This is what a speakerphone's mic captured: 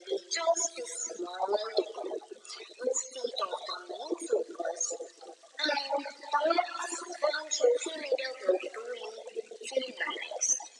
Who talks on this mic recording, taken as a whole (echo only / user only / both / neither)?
echo only